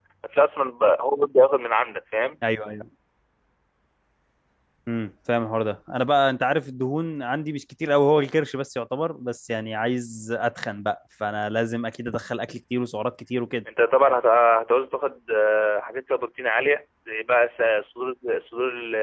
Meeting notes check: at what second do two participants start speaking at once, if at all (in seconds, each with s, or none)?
none